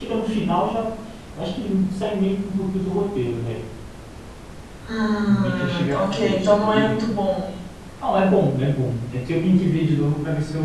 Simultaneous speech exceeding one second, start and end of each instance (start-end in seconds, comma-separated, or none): 5.3-6.9